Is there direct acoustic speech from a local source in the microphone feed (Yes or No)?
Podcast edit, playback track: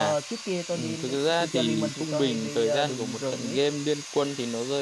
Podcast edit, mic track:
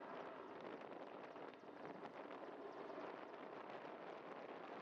No